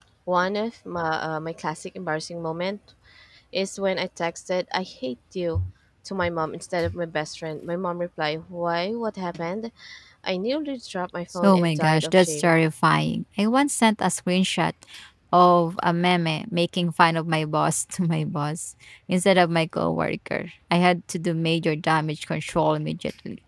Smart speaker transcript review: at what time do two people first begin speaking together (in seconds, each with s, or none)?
11.3 s